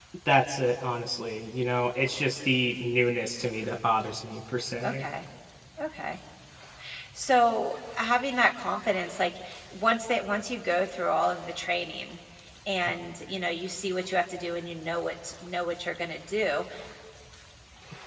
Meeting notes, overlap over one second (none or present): none